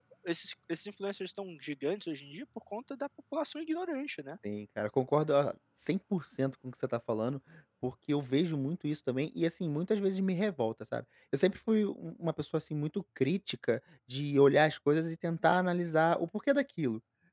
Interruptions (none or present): none